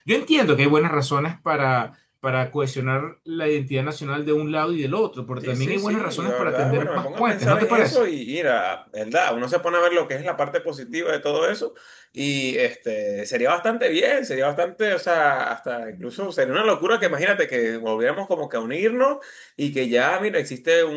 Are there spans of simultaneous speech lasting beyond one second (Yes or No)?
Yes